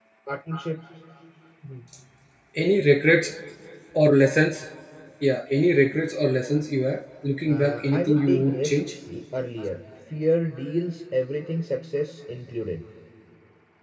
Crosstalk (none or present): present